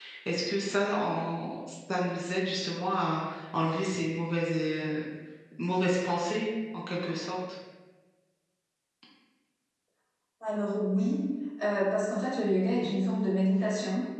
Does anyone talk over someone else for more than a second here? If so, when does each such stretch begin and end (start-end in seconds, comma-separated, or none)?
none